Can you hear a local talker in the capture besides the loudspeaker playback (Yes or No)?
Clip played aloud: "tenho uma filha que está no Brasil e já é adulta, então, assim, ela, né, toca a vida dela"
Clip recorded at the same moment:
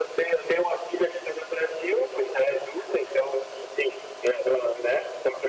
No